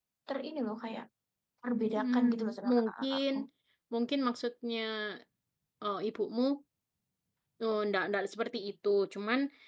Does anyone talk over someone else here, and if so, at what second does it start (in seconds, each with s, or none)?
1.9 s